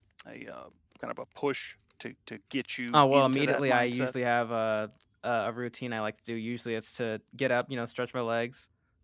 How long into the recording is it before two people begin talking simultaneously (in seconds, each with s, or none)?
2.9 s